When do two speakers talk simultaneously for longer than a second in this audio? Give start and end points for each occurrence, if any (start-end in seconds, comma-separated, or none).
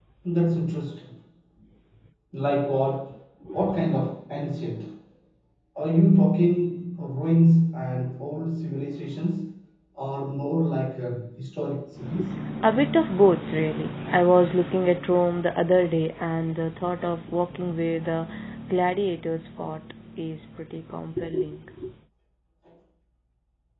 none